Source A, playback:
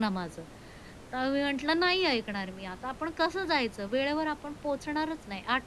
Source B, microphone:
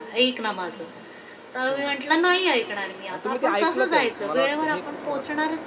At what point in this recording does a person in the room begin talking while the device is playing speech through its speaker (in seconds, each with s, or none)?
1.7 s